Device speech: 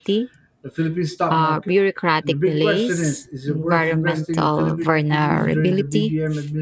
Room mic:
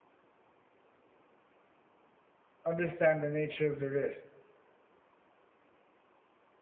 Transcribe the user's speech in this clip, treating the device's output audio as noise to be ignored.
understand the nature of the risk.

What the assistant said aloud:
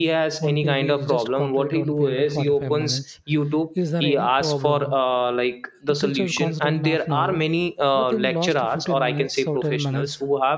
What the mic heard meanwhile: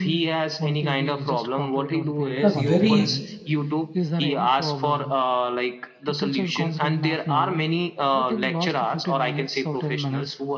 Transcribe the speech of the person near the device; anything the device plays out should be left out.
are very

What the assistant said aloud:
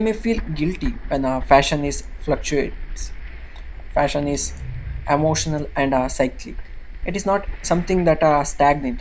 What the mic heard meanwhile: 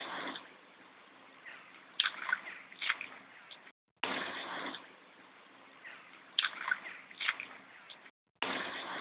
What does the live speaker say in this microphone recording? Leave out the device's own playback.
none

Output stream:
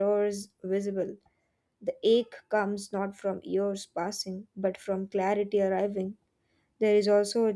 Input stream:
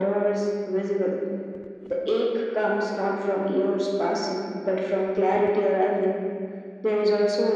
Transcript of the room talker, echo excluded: none

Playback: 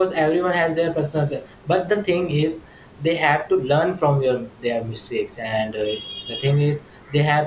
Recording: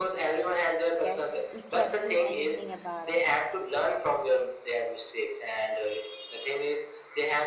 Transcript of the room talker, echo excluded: okay, we can't do anything about it,

